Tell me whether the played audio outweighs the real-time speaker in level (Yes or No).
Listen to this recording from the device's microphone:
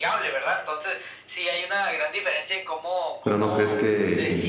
No